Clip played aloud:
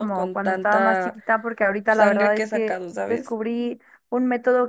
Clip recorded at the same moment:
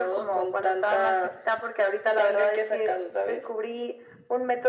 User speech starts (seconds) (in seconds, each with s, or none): none